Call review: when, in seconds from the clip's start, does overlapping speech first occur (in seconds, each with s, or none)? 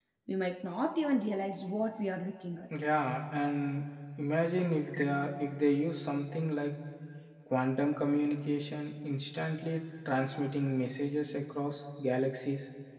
none